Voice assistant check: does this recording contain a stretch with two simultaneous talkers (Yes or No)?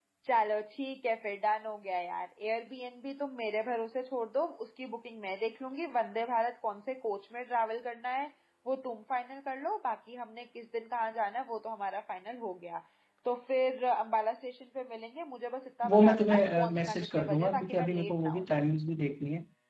Yes